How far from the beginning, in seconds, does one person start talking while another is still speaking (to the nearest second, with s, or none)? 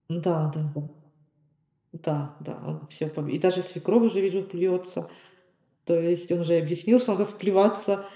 none